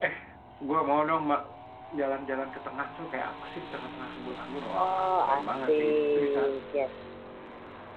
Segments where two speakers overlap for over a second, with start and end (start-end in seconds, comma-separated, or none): 4.8-6.4